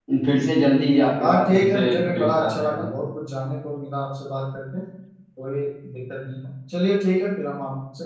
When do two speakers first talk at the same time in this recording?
1 s

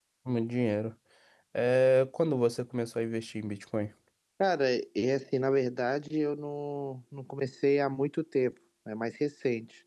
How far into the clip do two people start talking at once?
none

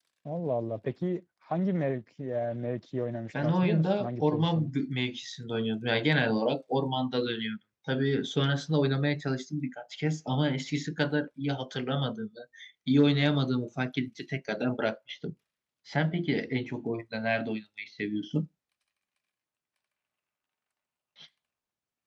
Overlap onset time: 3 s

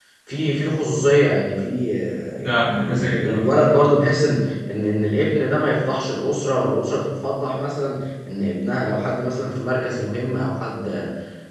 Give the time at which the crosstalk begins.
2 s

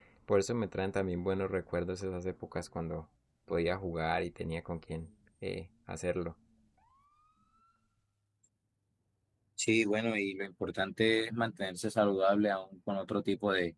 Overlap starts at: none

